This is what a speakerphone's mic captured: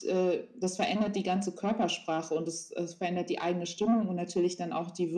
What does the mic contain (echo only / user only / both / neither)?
echo only